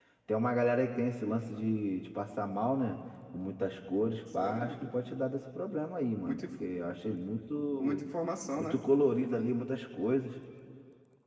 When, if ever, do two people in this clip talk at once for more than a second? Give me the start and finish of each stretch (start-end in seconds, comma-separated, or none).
none